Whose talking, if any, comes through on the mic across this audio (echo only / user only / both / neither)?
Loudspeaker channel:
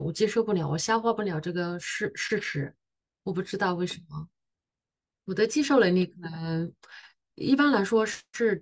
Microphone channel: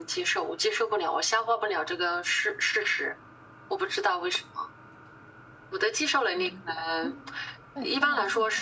both